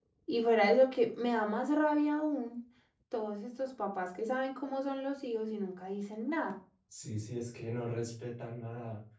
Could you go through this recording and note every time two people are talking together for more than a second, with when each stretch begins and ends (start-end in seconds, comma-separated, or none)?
none